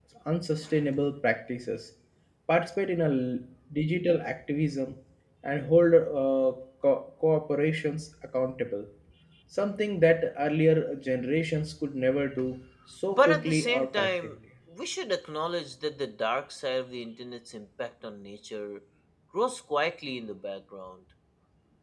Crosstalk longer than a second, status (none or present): present